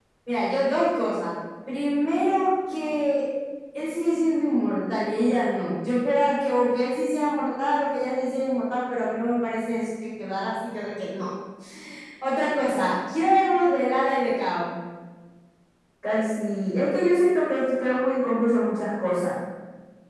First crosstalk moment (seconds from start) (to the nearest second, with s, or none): none